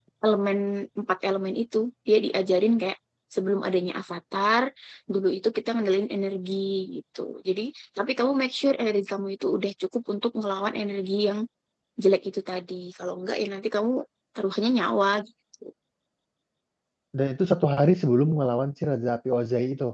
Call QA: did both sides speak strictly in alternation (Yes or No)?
Yes